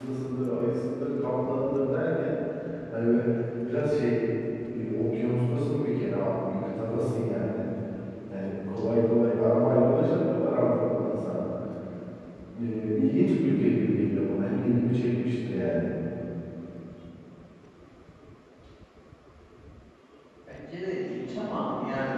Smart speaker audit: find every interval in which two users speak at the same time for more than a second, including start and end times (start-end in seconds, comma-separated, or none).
none